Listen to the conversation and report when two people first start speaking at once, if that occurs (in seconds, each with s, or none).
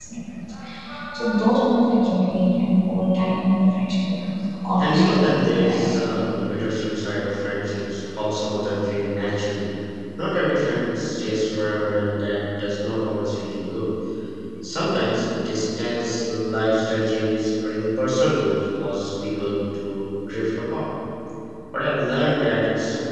4.8 s